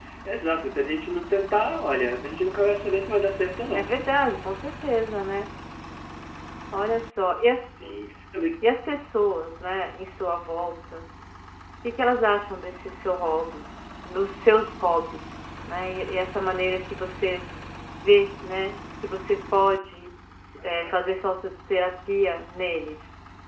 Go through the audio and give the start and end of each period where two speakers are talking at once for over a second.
none

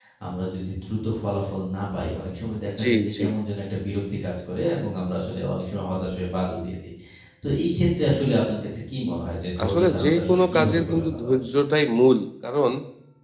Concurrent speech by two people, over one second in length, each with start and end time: 9.6-11.4

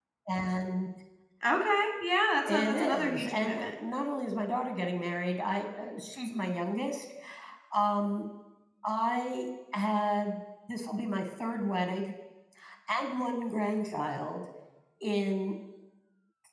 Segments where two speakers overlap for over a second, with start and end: 2.5-3.8

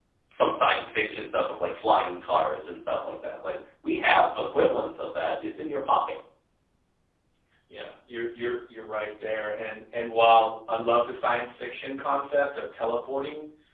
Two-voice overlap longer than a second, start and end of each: none

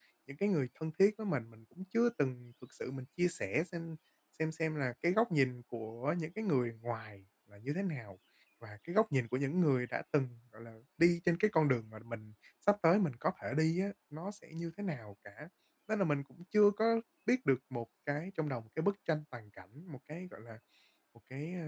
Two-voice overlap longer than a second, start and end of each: none

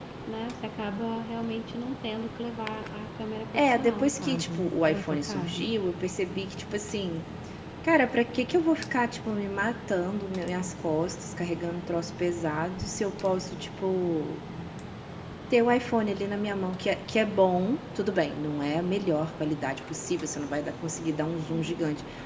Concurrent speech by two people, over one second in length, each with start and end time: 3.5-5.6

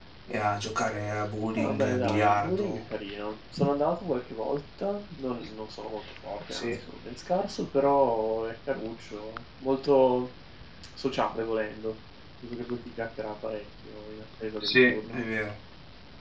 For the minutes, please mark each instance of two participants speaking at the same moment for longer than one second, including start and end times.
1.6-2.8

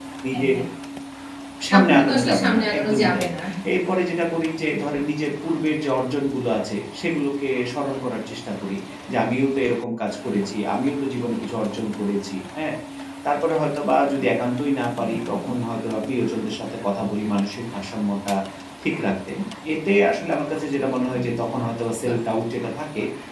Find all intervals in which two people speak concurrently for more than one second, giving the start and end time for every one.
1.7-3.3

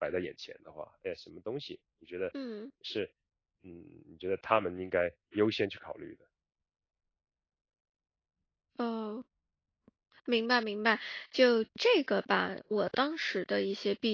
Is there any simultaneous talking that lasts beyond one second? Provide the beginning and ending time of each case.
none

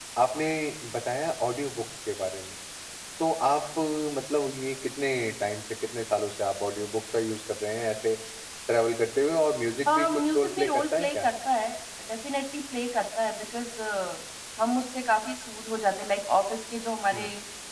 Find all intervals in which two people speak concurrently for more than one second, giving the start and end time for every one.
9.9-11.3

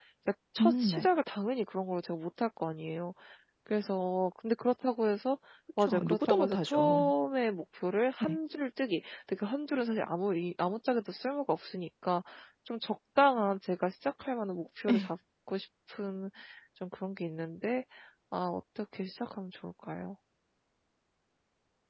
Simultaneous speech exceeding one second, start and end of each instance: 5.8-7.0

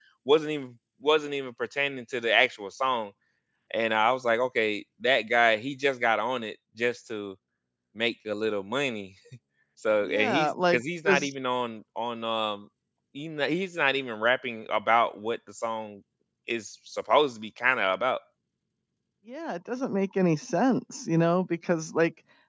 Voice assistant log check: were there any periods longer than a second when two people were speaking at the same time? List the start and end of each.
10.0-11.3

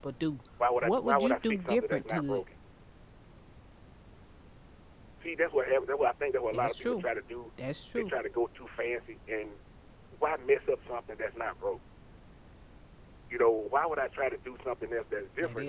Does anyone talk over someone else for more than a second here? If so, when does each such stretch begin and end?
0.8-2.4

